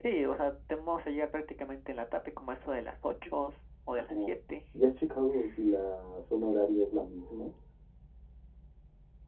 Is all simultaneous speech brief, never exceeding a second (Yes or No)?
Yes